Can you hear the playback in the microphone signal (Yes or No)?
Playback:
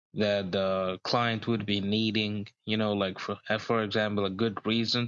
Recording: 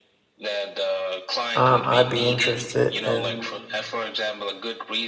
Yes